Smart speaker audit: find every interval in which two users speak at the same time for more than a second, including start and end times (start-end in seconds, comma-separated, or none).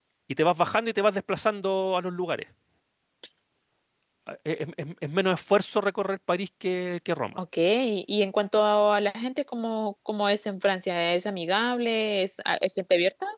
none